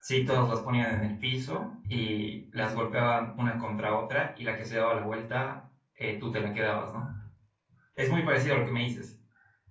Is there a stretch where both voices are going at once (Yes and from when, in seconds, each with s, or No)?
No